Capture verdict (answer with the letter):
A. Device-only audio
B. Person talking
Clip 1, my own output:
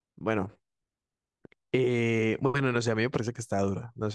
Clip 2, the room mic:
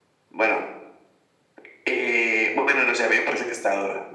A